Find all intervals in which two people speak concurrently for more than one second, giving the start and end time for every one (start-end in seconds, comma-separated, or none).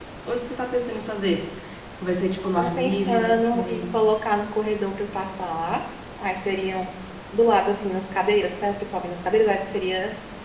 2.6-3.8